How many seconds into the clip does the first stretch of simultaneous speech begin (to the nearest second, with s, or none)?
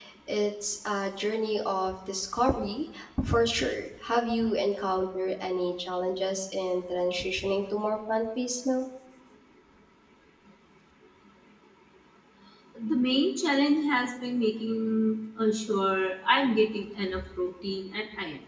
none